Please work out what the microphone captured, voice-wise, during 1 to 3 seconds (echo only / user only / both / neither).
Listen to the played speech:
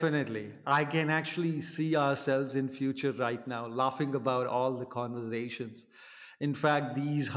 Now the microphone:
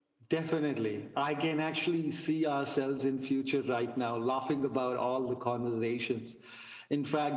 echo only